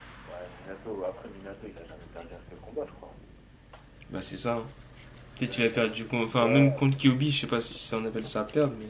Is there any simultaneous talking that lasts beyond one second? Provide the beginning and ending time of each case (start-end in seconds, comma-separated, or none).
5.4-6.9